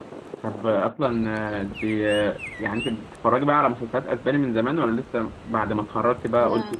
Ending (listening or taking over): listening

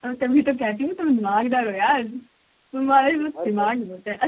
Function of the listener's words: listening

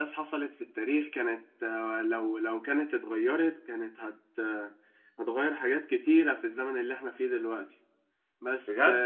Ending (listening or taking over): taking over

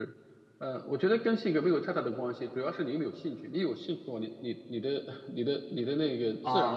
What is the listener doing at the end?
taking over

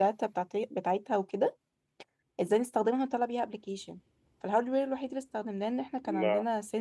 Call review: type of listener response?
listening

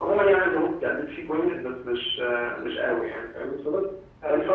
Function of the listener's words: listening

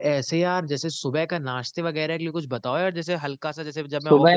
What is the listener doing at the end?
taking over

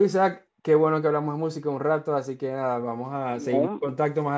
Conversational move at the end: listening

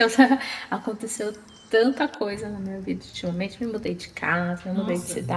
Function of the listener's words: listening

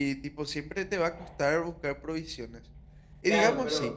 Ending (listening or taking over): taking over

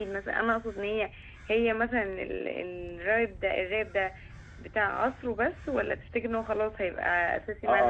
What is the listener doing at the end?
taking over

